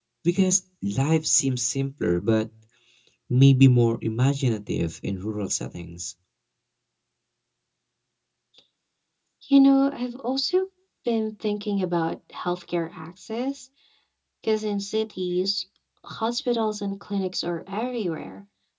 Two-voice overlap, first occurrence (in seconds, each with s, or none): none